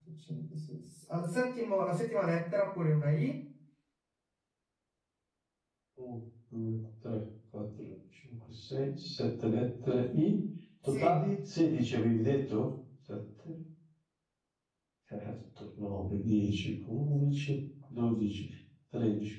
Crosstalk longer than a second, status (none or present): none